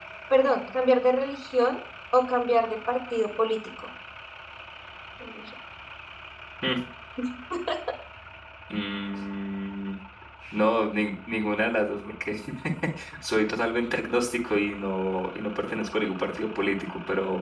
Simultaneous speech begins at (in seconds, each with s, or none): none